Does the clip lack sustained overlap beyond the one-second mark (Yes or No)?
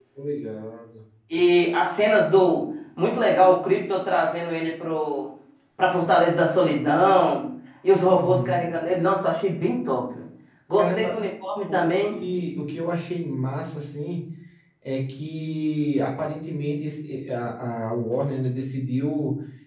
Yes